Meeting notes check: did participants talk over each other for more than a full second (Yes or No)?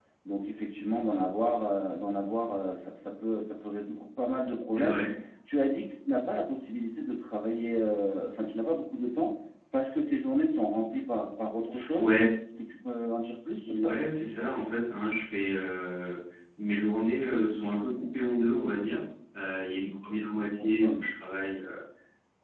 No